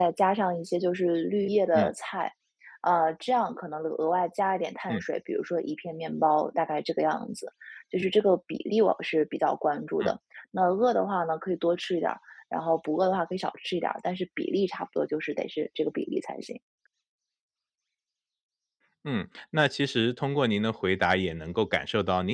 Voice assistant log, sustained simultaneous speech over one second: none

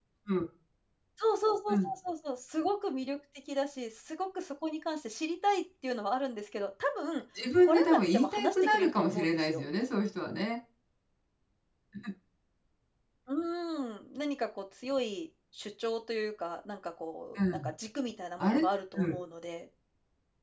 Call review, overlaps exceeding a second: present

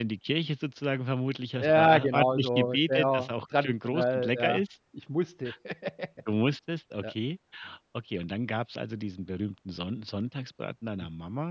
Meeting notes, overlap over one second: present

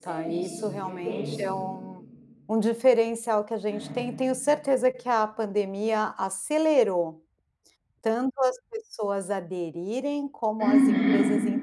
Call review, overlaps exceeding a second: present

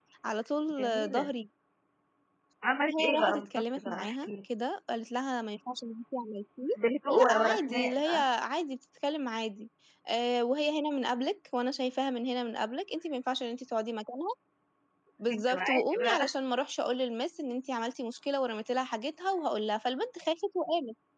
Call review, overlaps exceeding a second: present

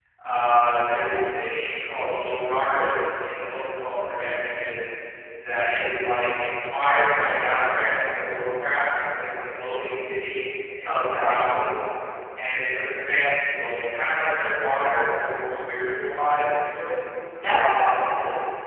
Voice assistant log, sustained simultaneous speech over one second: none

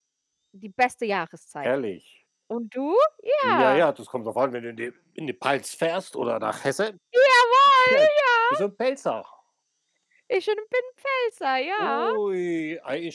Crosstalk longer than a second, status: none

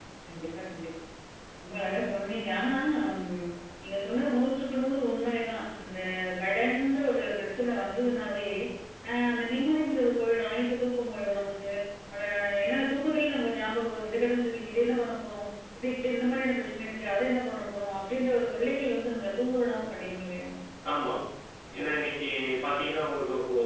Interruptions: none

